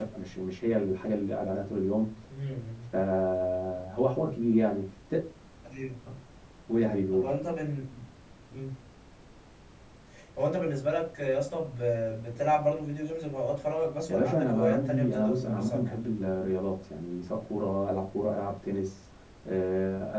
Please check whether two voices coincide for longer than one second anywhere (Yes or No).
Yes